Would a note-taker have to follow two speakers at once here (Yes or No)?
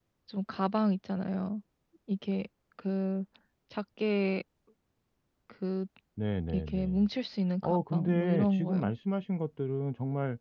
Yes